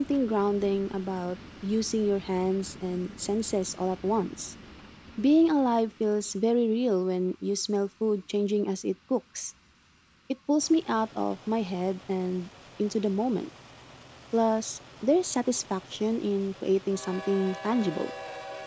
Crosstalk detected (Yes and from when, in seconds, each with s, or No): No